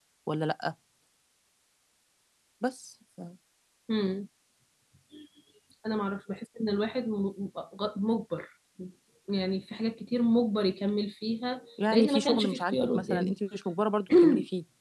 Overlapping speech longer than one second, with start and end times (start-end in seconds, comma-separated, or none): 11.9-13.3